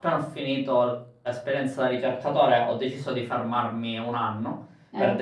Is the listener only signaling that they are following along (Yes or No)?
Yes